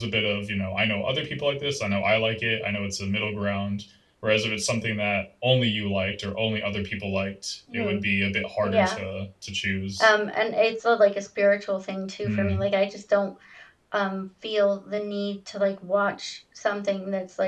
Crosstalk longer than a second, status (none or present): none